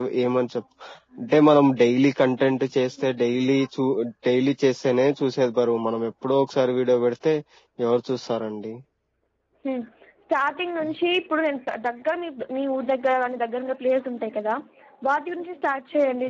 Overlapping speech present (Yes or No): No